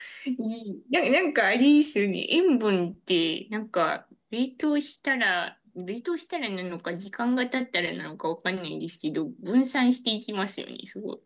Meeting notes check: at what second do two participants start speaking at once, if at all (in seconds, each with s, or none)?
none